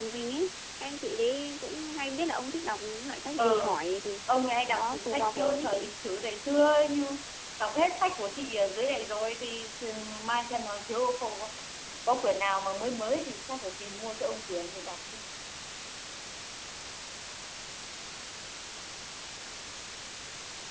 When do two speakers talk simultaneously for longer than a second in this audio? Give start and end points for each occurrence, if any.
4.7-5.9

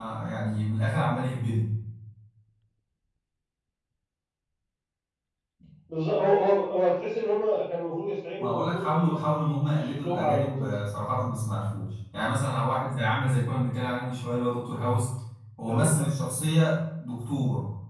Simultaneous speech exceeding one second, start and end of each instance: 8.4-10.7

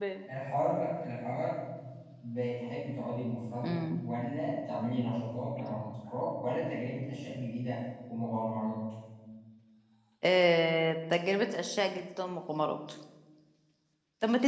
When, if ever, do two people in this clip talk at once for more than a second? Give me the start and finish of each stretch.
none

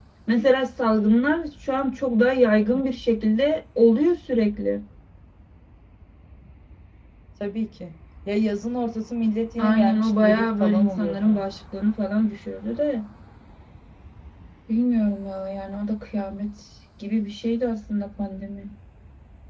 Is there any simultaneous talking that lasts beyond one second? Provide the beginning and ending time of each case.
9.6-11.3

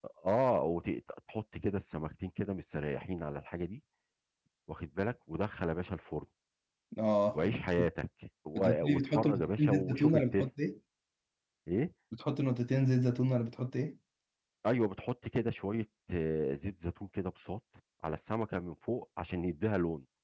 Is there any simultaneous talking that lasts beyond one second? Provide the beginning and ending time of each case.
8.6-10.4

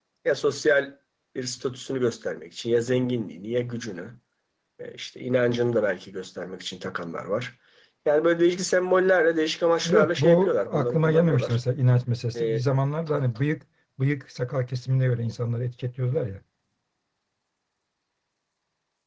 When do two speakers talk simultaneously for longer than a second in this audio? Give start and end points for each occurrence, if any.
9.8-11.6

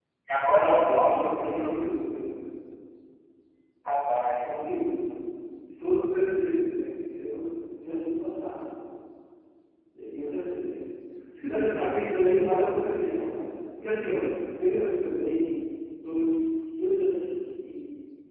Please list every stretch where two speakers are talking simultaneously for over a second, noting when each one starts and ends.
0.5-1.8

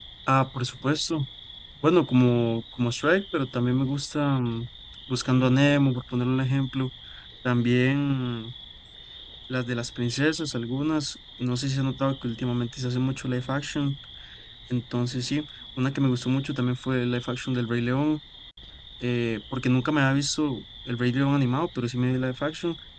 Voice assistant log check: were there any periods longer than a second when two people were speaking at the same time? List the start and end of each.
none

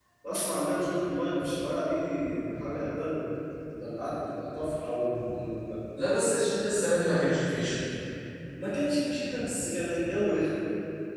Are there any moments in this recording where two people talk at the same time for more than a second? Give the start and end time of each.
none

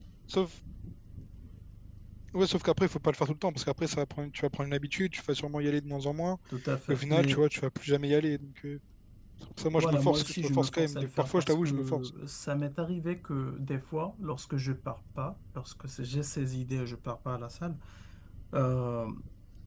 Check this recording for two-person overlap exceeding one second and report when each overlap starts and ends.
9.8-12.1

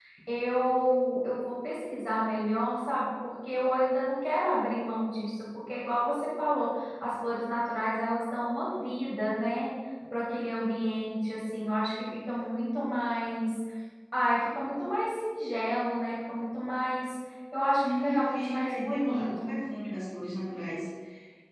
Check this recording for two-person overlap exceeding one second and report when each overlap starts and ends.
17.8-19.6

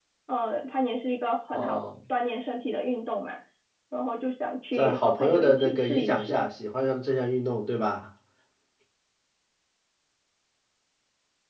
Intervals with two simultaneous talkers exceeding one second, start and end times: 4.7-6.4

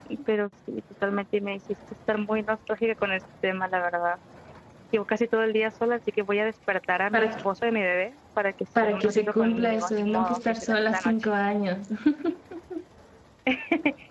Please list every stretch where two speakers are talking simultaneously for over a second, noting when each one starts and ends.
8.8-11.1

